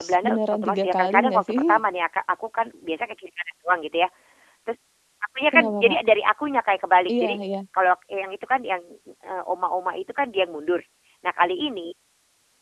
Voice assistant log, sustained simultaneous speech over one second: present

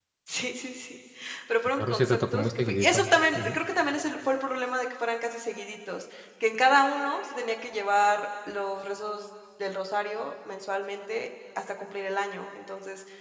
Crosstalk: present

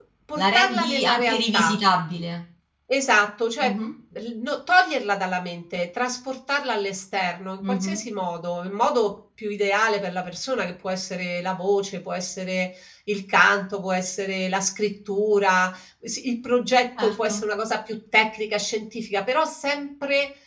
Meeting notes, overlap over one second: present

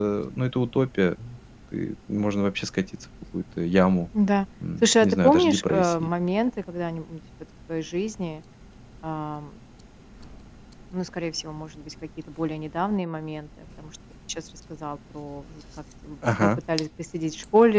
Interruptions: present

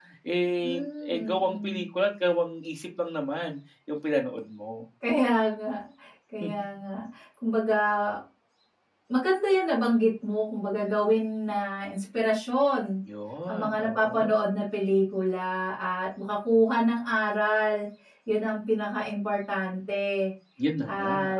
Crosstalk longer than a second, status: present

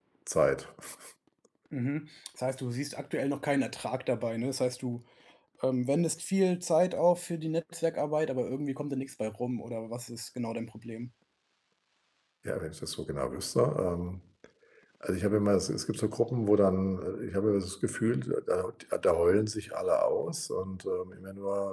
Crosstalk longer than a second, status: none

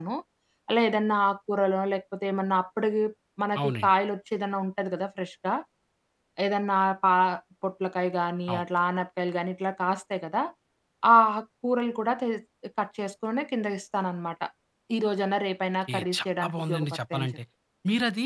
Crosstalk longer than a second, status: present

